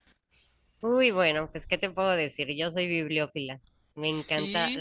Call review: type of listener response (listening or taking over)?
listening